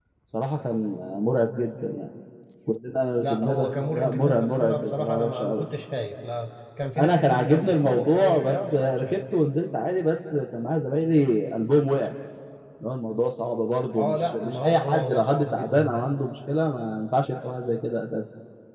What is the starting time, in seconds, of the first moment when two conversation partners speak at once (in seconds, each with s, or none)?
3.2 s